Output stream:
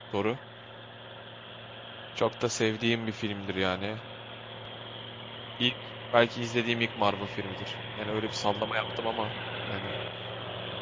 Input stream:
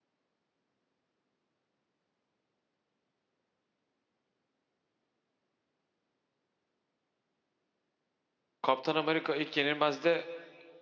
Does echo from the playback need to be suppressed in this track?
No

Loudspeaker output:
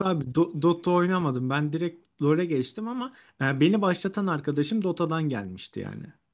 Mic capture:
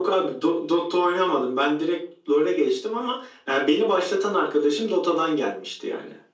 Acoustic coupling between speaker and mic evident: Yes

